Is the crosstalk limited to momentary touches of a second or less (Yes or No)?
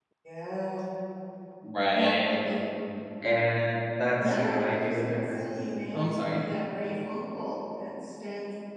No